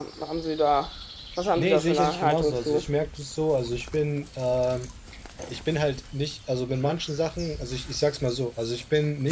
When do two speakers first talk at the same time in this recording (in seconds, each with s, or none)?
1.6 s